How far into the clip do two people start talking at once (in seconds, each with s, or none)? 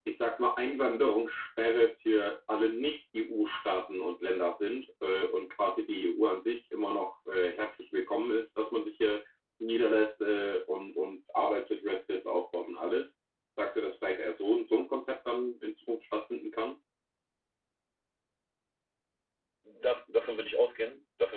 none